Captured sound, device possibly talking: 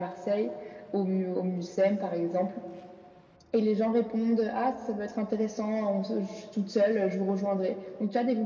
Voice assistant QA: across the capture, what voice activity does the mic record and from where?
echo only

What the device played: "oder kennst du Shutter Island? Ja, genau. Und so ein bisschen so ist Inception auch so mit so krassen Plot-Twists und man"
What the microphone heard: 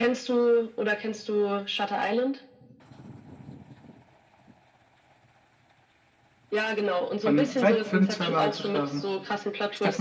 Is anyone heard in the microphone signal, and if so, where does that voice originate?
both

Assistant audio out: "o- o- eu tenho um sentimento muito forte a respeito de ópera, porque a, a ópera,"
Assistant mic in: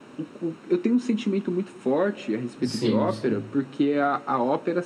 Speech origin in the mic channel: both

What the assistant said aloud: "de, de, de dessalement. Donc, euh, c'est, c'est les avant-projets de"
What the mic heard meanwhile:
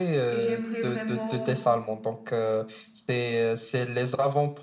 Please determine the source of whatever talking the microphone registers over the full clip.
both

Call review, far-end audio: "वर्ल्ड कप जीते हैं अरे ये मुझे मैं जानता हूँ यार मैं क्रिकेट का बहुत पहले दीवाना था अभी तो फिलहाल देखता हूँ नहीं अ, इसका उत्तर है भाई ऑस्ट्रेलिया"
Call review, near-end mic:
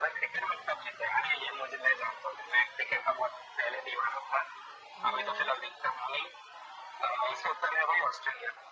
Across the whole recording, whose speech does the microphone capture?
both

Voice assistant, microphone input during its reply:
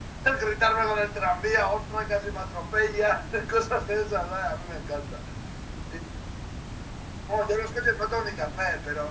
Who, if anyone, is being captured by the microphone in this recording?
echo only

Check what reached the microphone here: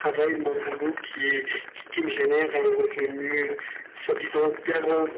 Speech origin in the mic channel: echo only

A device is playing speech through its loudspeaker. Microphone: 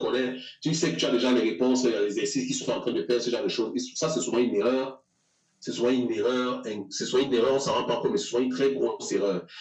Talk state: echo only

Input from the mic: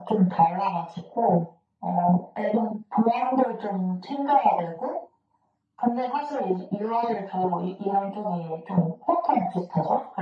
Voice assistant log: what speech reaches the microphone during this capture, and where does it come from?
echo only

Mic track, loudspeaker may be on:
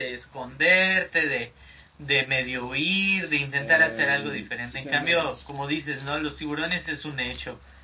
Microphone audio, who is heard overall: both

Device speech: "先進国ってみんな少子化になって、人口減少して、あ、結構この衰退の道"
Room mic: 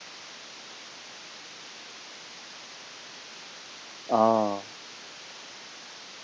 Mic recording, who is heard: user only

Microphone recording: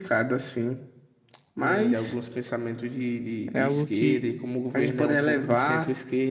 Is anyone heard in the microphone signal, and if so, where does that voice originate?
both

